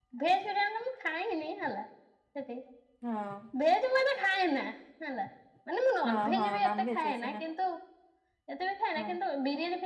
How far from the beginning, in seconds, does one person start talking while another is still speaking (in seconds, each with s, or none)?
6.1 s